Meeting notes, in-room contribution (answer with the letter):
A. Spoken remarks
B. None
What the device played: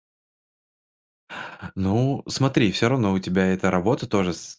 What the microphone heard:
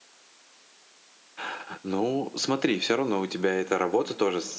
B